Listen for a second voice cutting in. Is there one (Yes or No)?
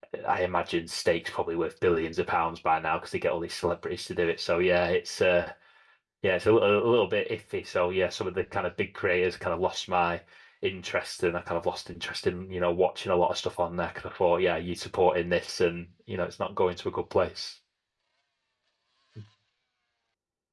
No